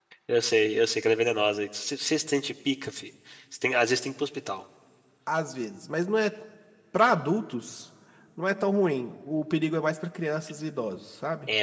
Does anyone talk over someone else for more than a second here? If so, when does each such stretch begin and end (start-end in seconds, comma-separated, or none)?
none